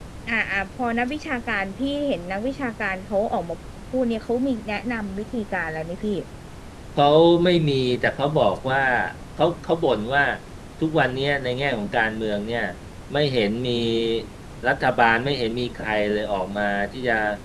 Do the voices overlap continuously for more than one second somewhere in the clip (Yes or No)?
No